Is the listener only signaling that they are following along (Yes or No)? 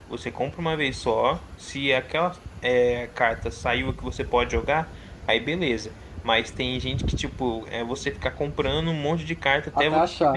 Yes